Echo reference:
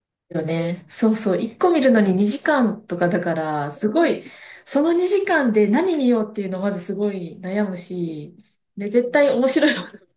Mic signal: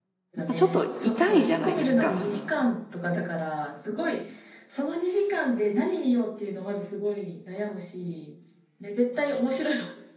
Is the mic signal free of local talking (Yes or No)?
No